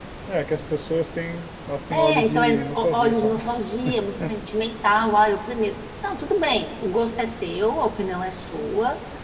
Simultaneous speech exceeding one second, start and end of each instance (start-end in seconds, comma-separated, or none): 1.9-3.3